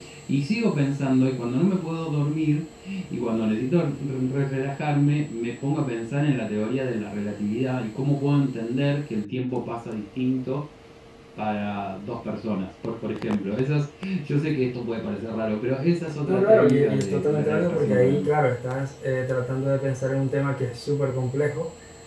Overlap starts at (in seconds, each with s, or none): 16.3 s